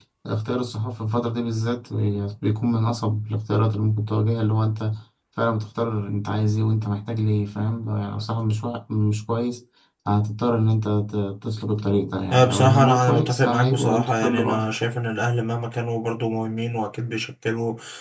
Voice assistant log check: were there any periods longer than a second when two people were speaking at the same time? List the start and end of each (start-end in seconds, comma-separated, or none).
12.3-14.8